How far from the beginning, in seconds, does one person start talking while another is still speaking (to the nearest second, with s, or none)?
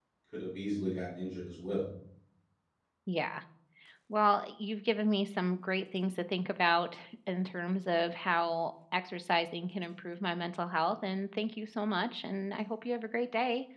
none